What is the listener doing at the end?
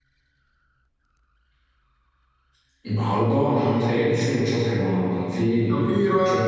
taking over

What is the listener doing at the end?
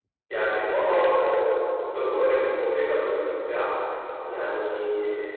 listening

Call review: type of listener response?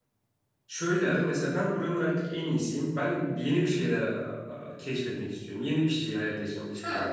taking over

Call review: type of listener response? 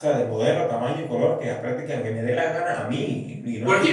taking over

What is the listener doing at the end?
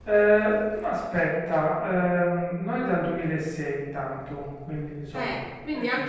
taking over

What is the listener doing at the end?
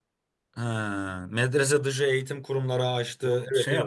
taking over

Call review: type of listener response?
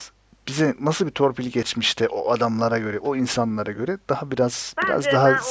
taking over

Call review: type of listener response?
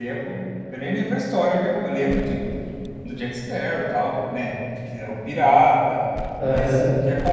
listening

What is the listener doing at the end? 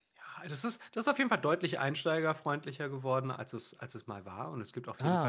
listening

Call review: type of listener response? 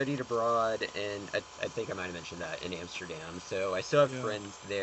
listening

